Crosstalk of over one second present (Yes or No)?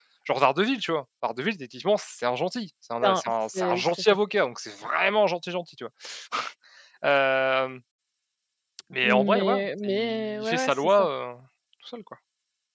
Yes